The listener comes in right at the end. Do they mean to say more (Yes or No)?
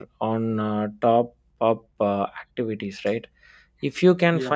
No